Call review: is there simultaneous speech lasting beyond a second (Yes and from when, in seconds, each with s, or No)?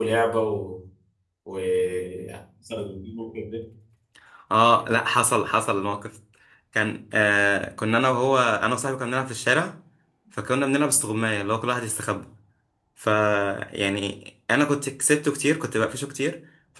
No